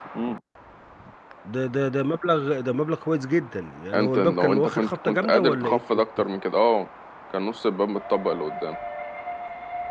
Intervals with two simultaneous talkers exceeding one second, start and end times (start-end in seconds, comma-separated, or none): 3.9-5.8